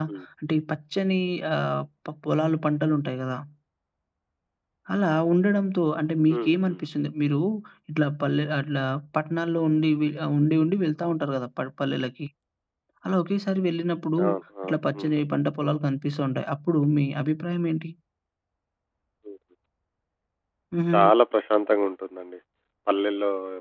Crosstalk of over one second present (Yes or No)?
No